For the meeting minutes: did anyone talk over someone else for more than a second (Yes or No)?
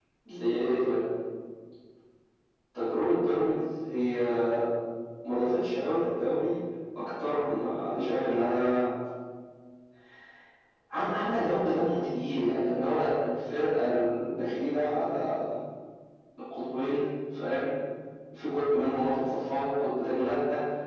No